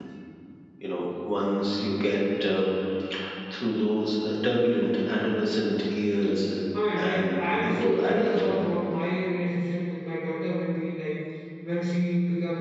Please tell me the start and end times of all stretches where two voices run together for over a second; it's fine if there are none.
7.0-8.5

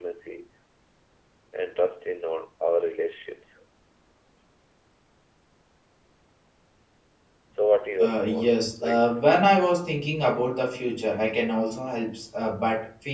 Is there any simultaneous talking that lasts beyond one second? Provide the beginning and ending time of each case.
8.0-9.2

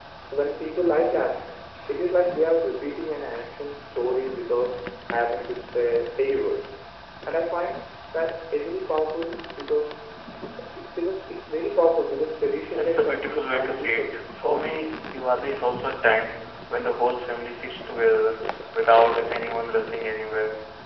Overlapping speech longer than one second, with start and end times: 12.7-14.9

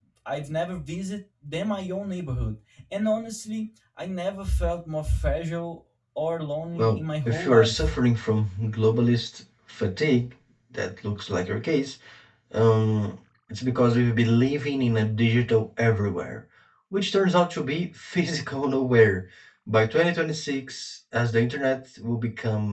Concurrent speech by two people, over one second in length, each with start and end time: 6.7-8.0

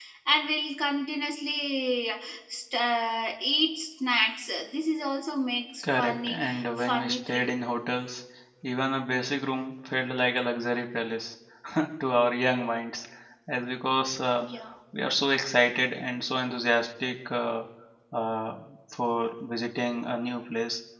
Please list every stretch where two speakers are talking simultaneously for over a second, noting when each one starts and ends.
6.0-7.4

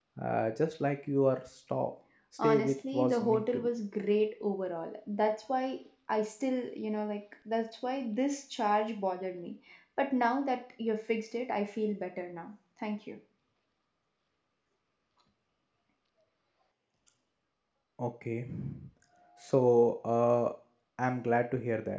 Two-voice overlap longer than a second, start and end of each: 2.4-3.7

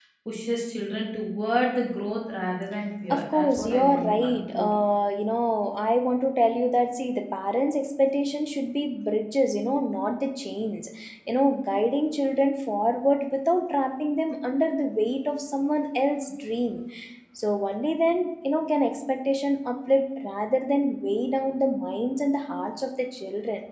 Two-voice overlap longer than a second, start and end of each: 3.1-4.7

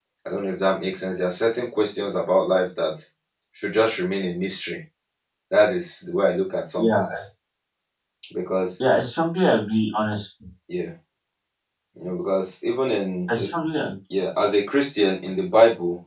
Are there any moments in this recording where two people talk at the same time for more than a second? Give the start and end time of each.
none

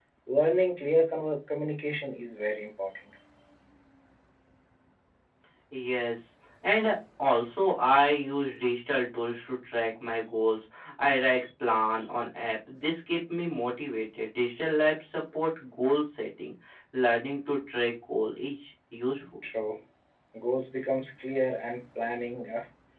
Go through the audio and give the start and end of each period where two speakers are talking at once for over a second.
none

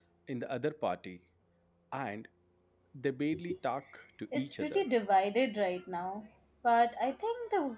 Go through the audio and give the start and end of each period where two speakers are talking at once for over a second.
none

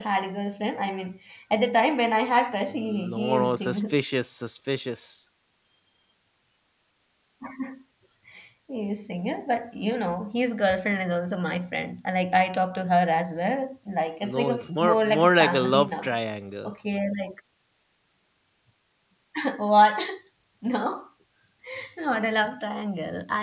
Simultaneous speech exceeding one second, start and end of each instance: 2.7-3.9, 14.2-16.1

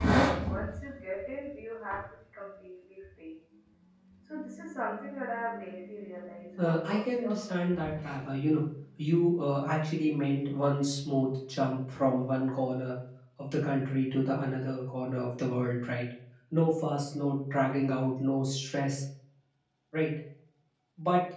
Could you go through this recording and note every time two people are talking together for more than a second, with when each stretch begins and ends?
6.6-8.1

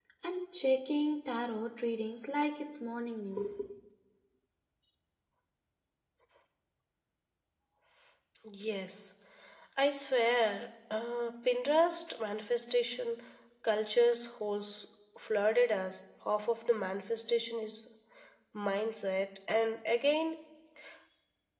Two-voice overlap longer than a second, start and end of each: none

